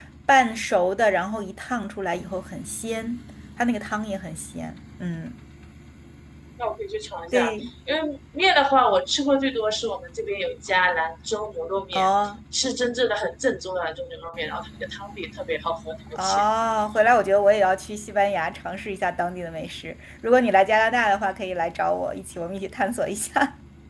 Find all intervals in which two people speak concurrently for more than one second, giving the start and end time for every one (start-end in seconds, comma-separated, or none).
none